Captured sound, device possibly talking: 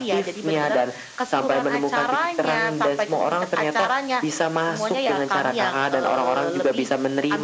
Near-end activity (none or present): none